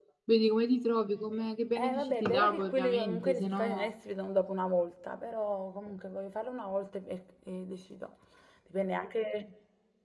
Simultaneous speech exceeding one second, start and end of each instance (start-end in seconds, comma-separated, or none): 1.8-3.9